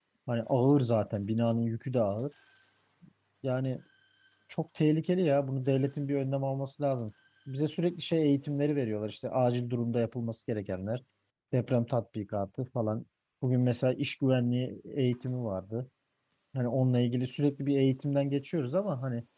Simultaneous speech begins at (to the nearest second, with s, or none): none